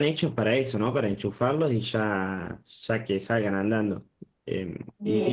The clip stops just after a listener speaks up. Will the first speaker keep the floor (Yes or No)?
No